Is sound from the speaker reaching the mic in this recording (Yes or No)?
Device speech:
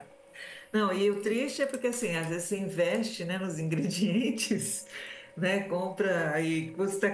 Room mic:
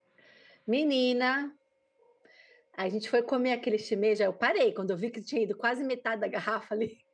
No